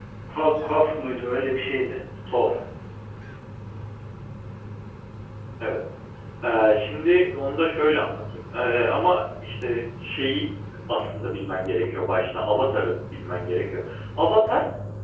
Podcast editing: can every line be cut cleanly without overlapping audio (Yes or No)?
Yes